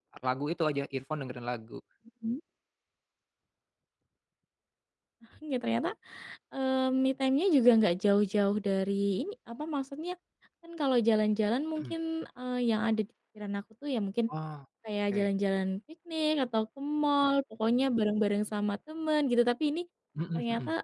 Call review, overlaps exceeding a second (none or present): none